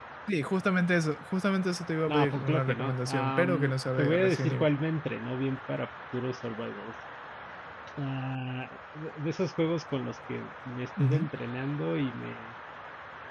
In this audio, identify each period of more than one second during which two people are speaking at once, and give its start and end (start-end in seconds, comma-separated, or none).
2.1-4.7